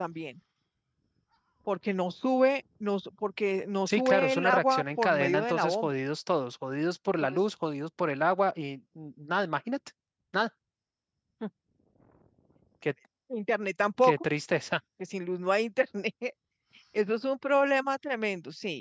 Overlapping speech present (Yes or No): Yes